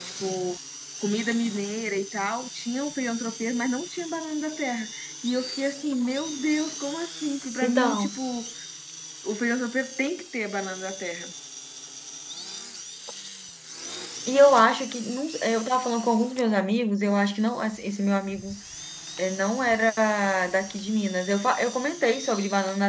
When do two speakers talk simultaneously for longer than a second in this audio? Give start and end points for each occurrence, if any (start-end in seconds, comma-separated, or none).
none